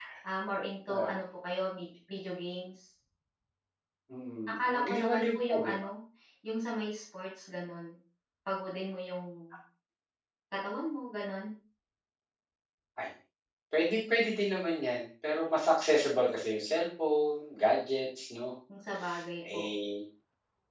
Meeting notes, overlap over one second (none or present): present